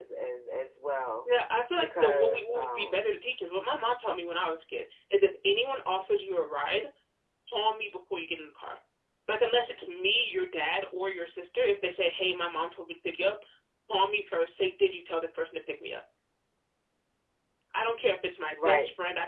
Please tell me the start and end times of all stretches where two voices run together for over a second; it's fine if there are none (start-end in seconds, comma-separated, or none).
1.8-3.1